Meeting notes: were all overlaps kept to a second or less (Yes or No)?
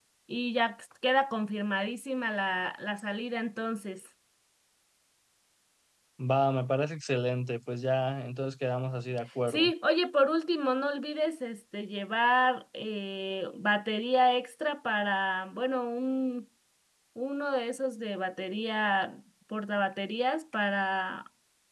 Yes